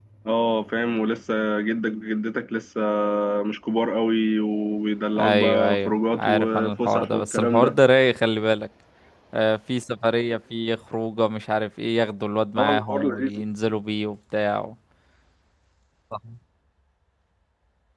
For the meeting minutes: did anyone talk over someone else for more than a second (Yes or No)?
Yes